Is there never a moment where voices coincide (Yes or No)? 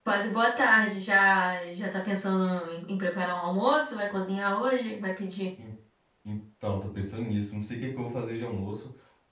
Yes